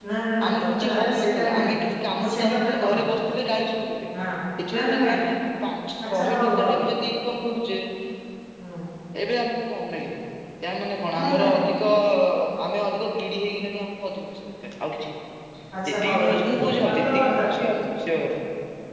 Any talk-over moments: Yes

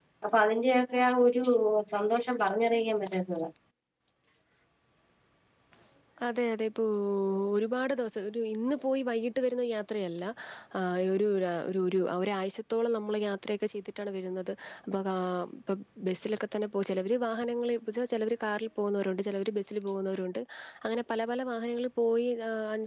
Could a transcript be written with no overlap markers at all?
Yes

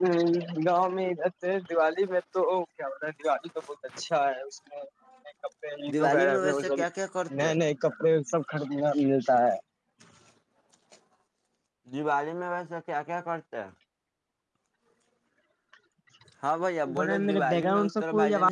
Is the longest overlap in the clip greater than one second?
Yes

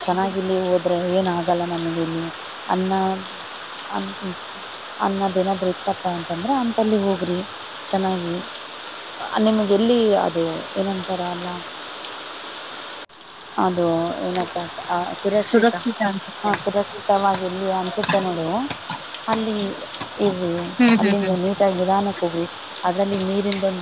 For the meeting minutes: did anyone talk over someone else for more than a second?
No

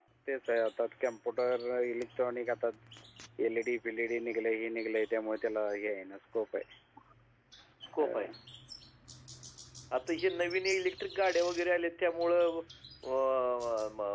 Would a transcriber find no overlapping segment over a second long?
Yes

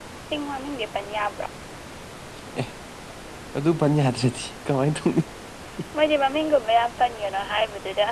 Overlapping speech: No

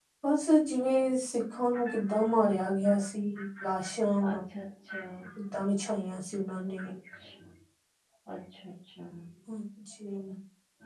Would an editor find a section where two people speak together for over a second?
No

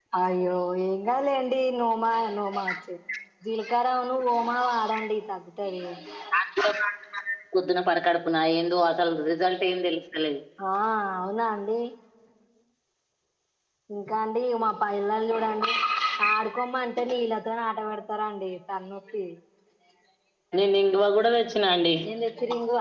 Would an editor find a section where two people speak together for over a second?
No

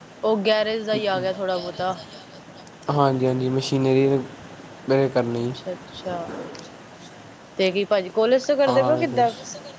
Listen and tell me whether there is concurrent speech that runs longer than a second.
No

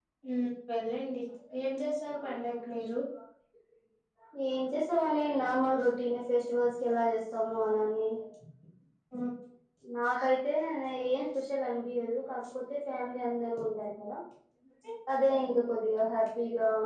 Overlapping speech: No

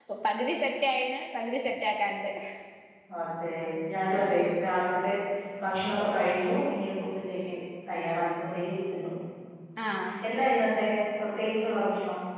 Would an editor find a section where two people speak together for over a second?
No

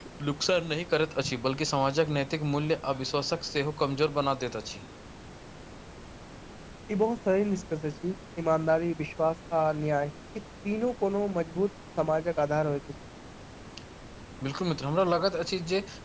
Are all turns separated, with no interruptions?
Yes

